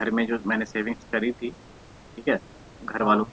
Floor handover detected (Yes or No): No